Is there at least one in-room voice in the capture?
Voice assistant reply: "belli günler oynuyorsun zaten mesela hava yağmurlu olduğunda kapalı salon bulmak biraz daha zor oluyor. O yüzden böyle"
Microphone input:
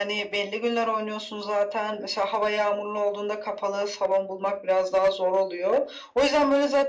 No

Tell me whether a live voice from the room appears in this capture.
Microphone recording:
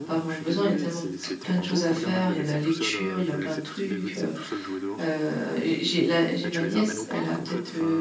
Yes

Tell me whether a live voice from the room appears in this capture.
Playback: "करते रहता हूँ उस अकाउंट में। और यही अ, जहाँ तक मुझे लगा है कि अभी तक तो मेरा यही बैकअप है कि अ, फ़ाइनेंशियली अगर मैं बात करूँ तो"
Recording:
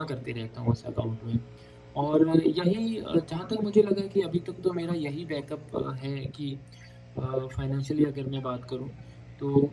No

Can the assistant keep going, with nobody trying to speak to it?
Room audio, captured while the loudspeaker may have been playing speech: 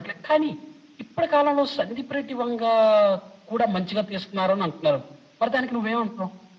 Yes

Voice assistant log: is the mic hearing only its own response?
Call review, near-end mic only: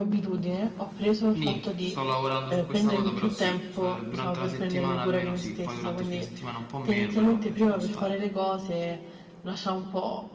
No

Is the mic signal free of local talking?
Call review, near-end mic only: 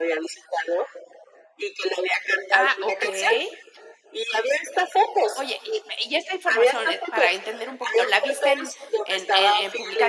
No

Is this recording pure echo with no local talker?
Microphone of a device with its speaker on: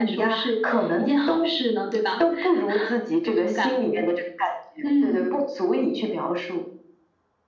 Yes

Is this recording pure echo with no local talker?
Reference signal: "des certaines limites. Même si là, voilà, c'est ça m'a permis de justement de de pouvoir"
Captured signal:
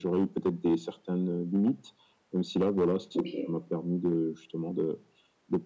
No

